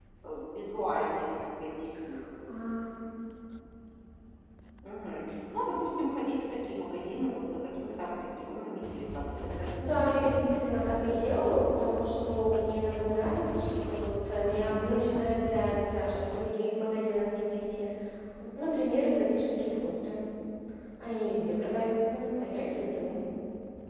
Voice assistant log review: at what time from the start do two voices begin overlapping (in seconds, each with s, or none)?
9.8 s